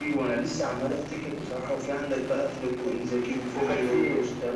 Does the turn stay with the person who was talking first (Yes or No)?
Yes